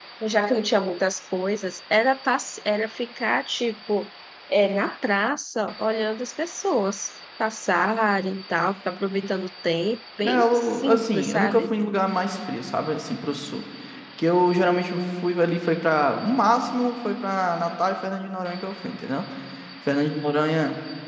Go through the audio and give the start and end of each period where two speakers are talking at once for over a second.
10.2-11.7

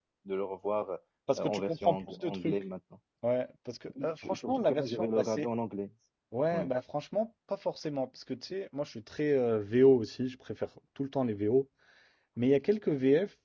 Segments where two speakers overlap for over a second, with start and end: 1.4-2.6, 4.0-5.5

